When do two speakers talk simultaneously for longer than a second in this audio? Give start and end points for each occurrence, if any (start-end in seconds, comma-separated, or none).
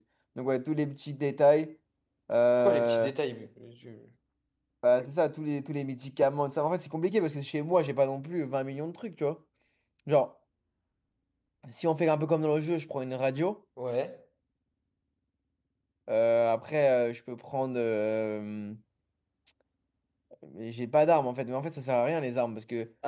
none